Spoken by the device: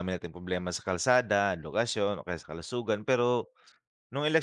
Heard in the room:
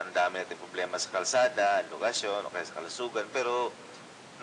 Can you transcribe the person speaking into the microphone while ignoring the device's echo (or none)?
none